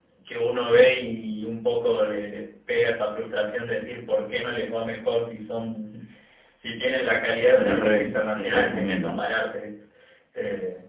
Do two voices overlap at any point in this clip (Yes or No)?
Yes